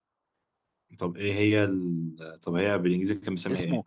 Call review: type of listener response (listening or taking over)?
taking over